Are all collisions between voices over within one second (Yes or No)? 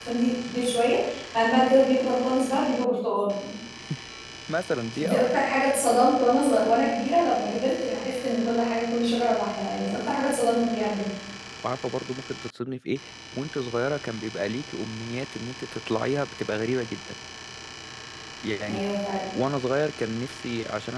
Yes